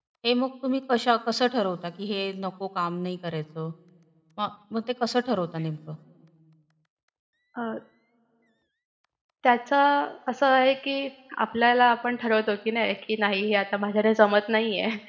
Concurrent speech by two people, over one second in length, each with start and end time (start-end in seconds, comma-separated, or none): none